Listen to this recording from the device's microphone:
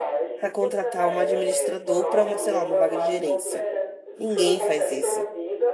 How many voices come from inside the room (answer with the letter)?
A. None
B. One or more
B